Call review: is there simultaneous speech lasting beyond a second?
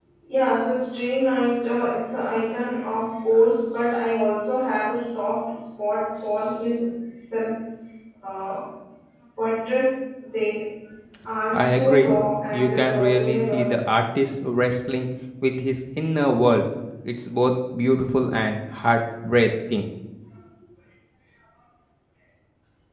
Yes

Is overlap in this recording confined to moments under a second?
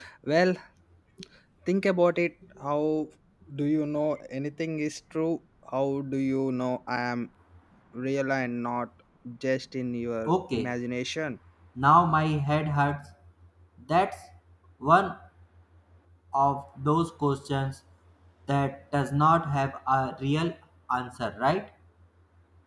Yes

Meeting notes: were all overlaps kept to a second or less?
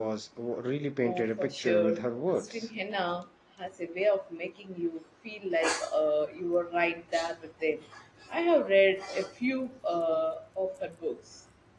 No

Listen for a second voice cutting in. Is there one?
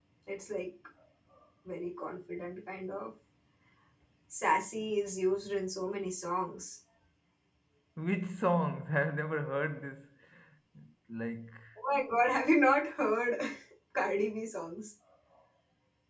No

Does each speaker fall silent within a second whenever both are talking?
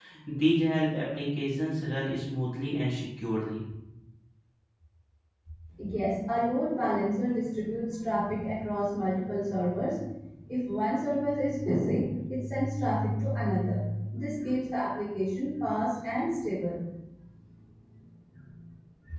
Yes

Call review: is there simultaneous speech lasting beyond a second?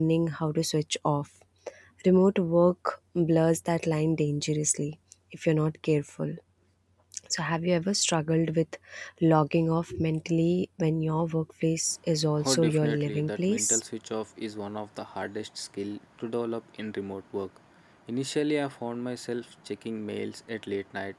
Yes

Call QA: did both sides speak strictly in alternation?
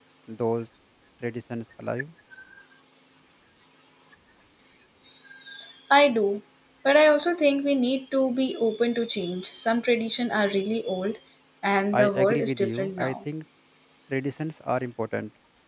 No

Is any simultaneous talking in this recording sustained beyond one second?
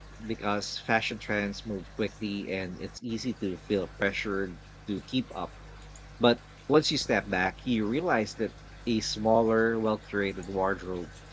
No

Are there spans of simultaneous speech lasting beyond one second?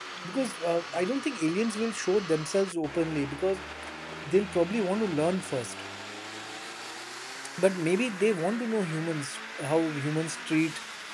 No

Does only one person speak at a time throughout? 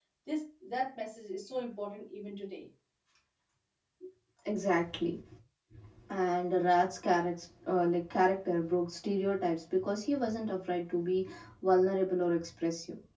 Yes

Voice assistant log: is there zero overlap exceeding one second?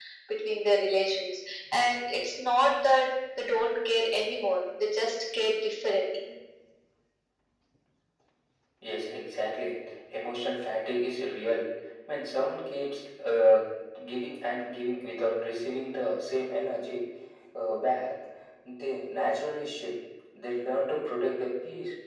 Yes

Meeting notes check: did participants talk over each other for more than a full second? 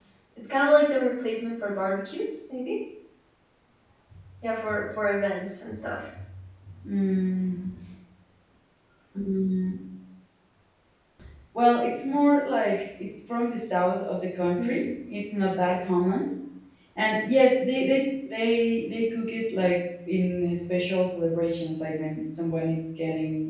No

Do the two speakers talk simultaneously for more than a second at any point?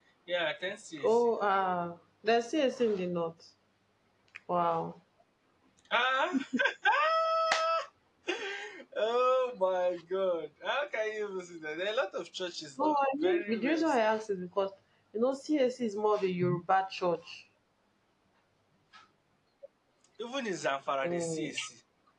Yes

